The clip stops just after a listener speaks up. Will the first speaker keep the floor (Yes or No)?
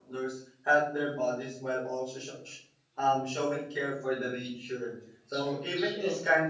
Yes